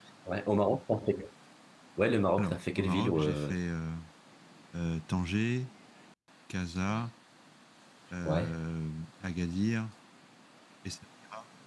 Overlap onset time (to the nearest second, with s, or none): 2 s